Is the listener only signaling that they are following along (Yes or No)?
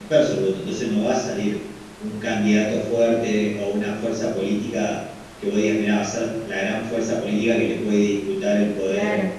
No